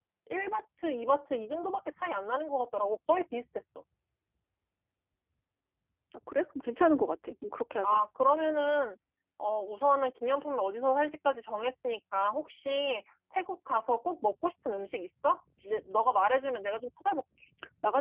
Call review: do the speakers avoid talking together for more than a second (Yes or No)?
Yes